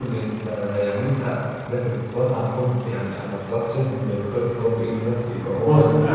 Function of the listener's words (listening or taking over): taking over